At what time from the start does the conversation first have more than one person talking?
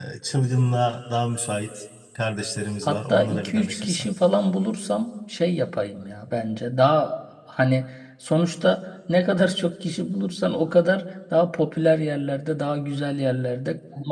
2.8 s

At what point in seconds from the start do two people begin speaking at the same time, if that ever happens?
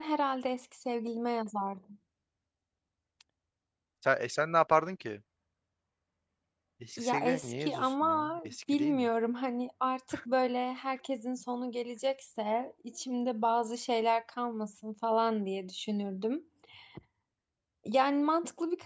7.0 s

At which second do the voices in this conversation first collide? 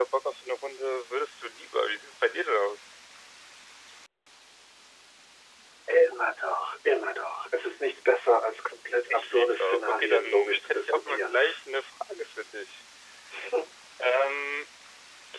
9.1 s

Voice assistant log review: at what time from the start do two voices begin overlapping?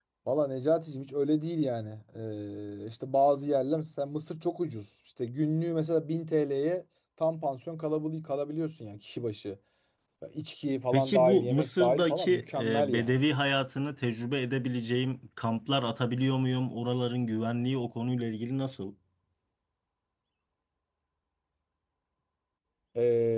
10.9 s

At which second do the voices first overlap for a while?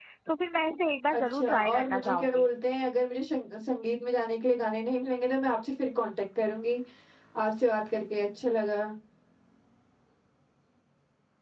1.1 s

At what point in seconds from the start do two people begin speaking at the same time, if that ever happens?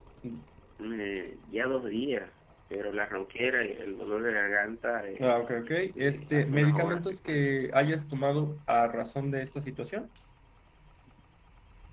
5.2 s

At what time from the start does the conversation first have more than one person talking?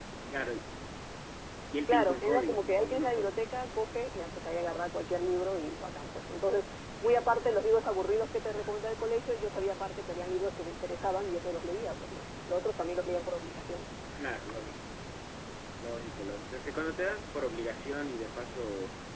1.9 s

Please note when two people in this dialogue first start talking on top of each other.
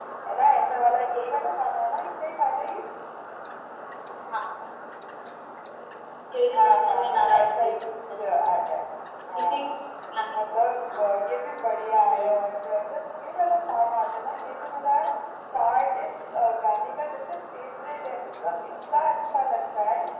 6.5 s

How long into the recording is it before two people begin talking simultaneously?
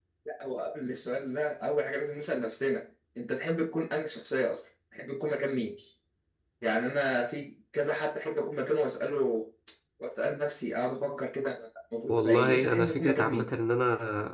12.1 s

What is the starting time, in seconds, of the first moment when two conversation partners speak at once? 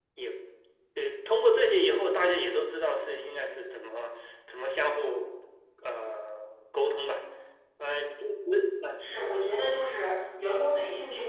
none

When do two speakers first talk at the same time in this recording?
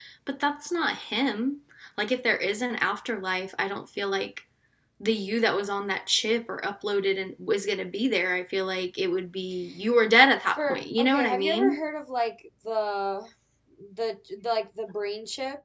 10.6 s

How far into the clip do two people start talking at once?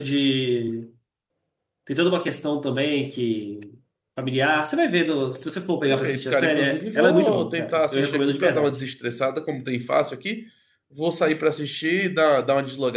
5.8 s

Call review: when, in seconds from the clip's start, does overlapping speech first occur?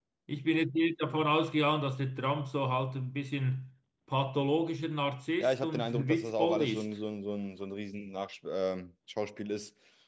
5.4 s

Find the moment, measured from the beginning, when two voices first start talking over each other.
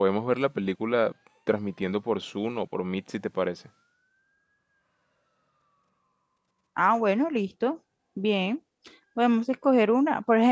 none

